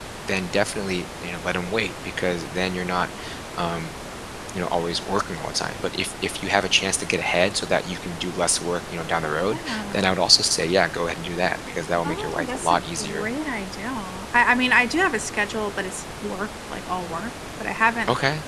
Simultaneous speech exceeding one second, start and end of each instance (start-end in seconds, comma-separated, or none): 12.0-13.3